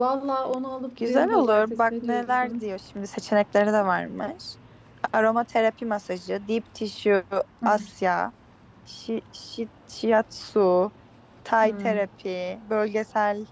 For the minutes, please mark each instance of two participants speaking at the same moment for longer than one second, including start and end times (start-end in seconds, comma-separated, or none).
1.0-2.6